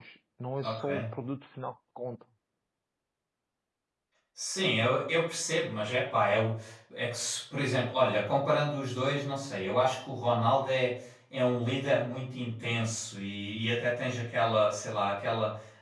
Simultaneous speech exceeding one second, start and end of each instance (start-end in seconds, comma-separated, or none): none